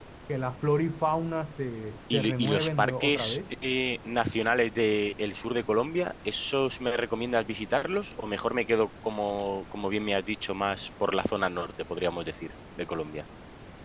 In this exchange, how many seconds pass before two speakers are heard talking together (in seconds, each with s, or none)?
2.1 s